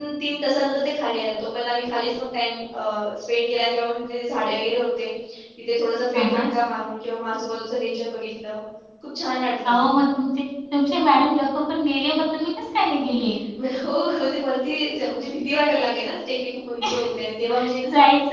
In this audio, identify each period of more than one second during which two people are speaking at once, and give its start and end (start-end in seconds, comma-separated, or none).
none